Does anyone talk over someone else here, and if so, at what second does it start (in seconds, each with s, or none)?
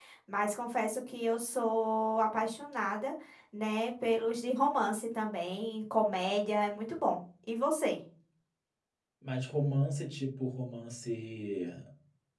none